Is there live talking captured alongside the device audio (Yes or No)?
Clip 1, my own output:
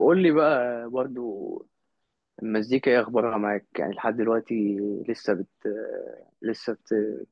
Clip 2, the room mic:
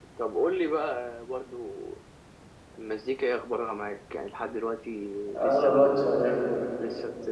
Yes